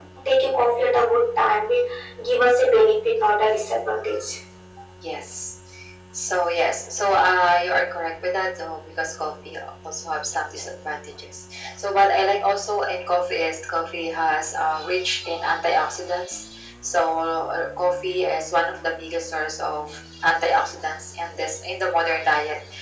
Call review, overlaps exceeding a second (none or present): none